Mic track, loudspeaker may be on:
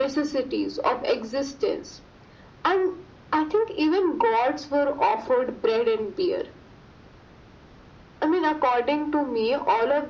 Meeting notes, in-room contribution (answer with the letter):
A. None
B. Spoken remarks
A